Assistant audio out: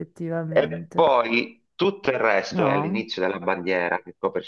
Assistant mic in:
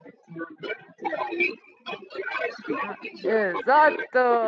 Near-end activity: present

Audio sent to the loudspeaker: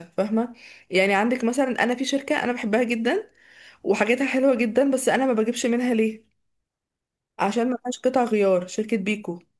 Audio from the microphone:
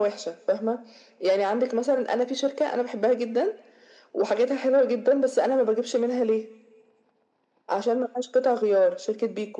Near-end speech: none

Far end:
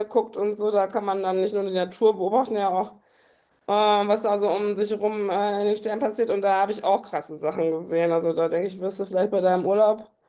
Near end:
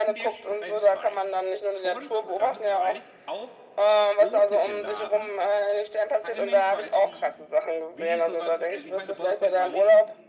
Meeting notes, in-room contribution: present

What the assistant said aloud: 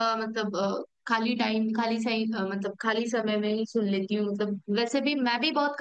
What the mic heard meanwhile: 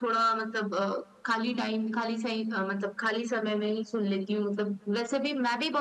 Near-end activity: none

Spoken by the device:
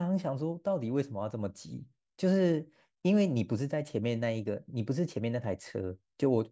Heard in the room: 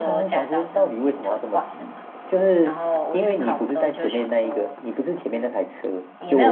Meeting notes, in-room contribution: present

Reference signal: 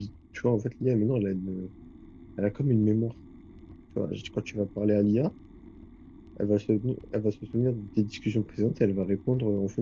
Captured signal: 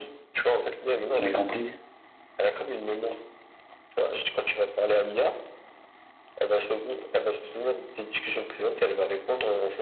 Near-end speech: present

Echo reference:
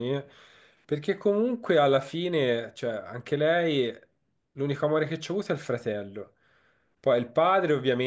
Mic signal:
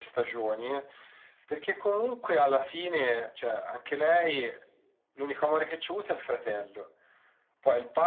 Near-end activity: none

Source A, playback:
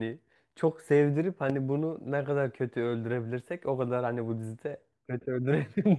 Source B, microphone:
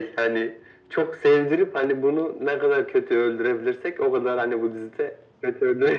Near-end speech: none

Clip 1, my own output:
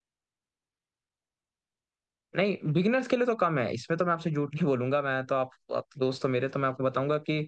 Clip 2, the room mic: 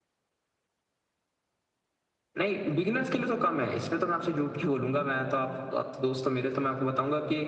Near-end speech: none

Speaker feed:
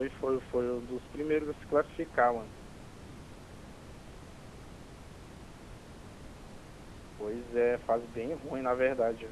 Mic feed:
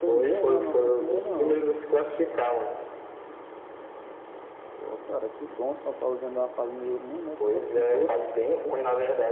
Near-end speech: present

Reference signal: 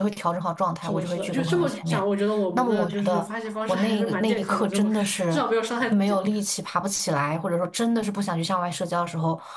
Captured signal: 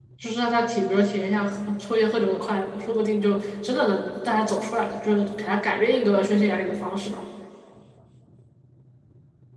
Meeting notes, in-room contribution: present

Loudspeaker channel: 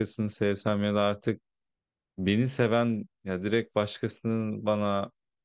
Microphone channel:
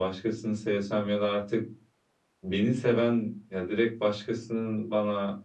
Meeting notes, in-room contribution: none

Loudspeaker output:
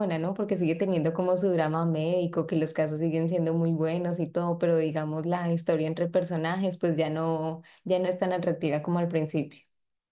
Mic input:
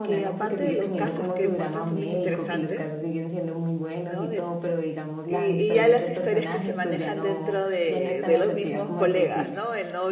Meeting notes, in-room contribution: present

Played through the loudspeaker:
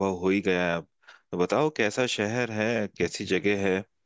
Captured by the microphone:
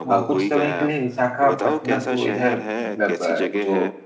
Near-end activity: present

